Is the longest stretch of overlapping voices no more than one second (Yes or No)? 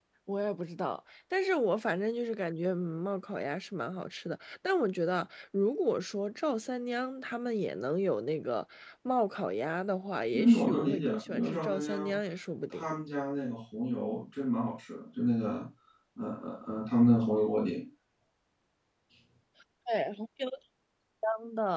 No